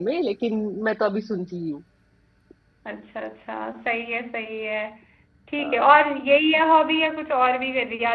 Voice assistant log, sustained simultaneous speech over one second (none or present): none